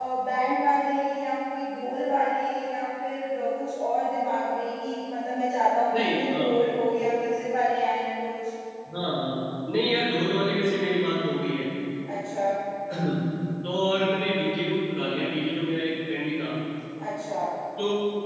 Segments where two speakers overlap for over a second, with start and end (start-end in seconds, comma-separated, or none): none